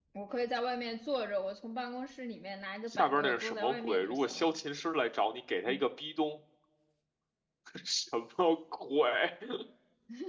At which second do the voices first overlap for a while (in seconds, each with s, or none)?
2.9 s